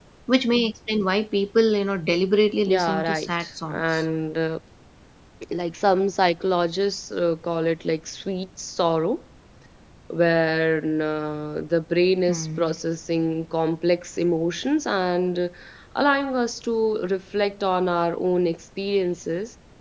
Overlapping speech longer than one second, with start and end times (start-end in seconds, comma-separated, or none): 2.7-4.0